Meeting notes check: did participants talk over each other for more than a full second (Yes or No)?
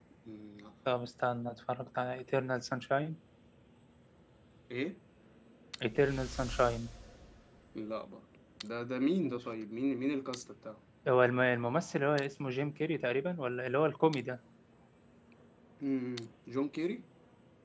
No